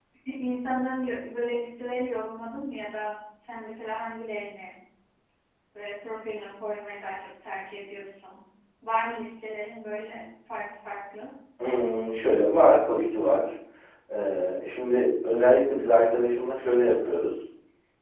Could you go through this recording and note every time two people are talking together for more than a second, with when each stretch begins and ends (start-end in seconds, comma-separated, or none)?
none